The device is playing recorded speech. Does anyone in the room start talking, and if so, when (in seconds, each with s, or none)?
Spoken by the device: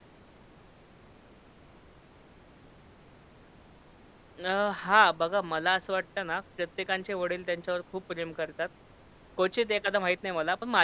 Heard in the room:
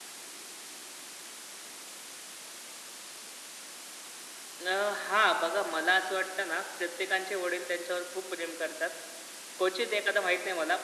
none